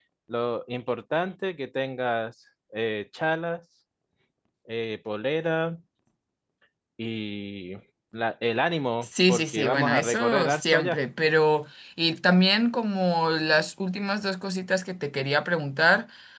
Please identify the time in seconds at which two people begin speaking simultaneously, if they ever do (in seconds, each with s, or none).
9.0 s